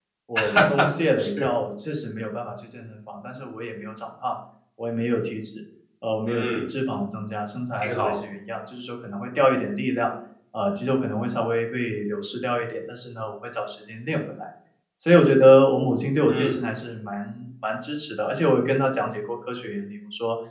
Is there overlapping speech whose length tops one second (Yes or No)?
No